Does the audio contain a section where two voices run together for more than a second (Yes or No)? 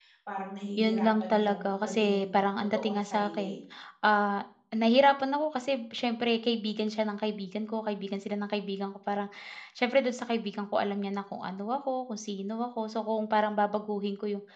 Yes